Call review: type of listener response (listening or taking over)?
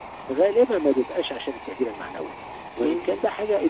listening